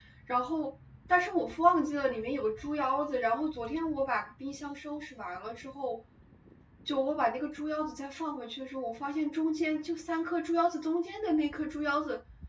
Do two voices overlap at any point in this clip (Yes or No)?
No